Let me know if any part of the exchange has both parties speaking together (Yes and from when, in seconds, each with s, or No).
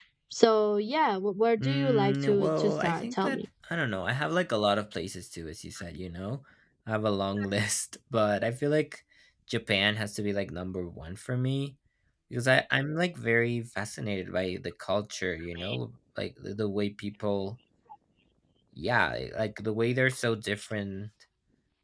Yes, from 1.6 s